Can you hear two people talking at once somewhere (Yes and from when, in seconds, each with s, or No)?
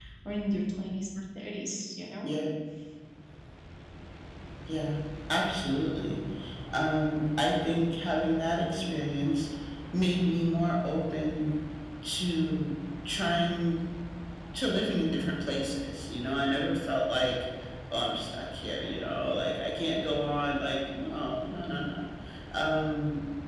No